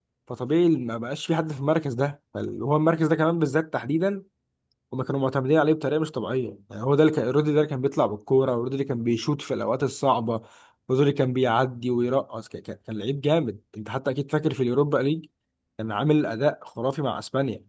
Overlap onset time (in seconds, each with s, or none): none